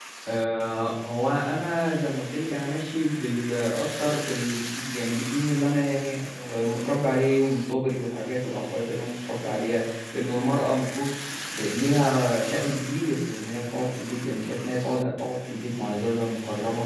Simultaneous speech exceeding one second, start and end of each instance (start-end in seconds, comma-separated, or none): none